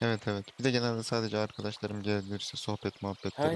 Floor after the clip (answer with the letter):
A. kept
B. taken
B